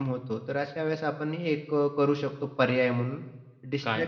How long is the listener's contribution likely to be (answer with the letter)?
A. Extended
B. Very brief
B